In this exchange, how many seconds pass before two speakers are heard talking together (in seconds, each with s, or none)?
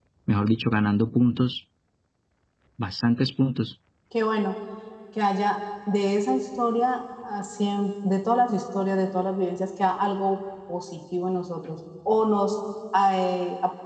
none